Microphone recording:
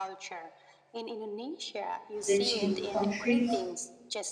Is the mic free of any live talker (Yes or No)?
No